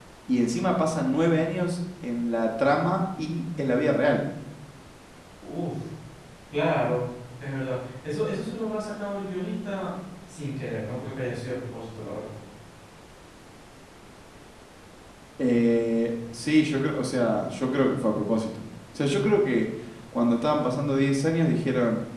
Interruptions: none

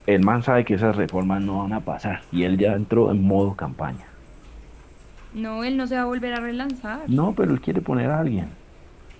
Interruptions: none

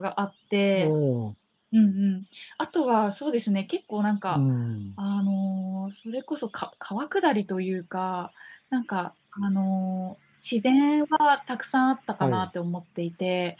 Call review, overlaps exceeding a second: none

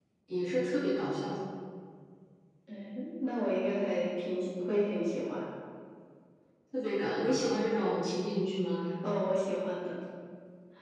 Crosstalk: none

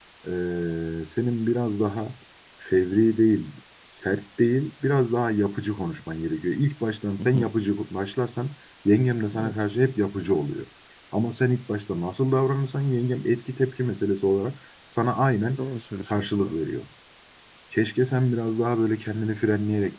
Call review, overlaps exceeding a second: none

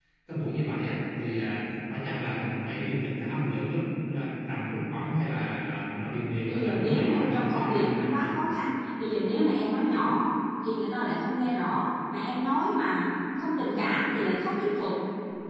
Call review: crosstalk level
present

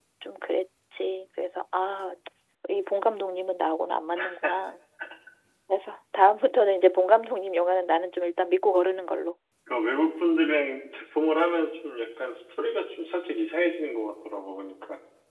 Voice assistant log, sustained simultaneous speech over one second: none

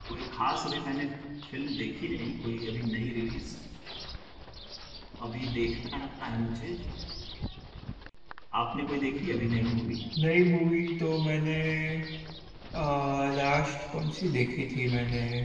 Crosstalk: none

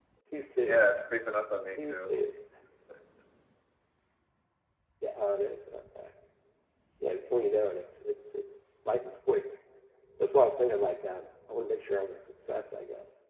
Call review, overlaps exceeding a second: none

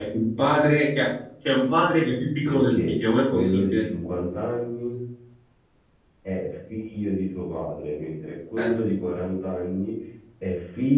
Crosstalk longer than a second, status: present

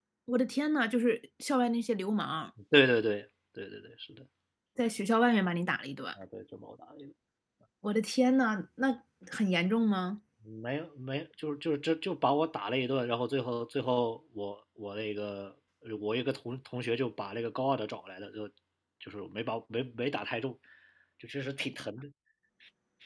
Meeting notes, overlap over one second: none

